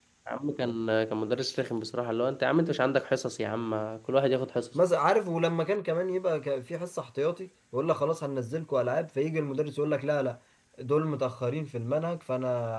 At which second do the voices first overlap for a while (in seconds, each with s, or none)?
none